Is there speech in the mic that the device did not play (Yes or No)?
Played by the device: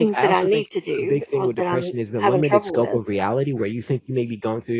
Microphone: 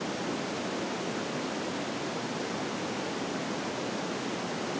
No